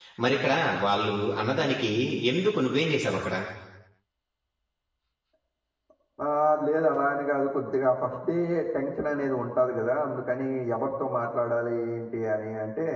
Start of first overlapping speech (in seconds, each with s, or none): none